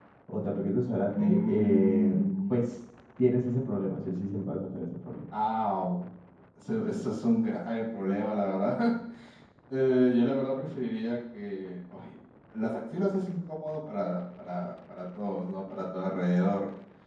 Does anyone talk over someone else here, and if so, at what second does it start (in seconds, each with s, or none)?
1.1 s